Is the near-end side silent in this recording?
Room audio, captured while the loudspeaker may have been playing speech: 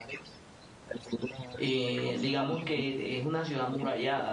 No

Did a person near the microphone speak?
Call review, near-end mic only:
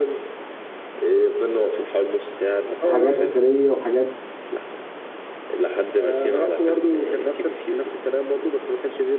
Yes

